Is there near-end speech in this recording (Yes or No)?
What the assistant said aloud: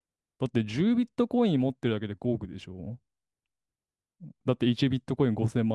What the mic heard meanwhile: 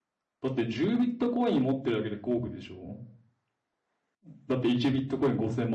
No